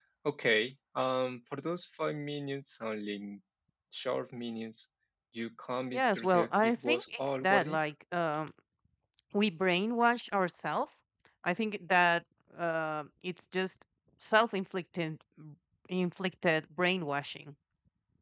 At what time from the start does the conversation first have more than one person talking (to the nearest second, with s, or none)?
6 s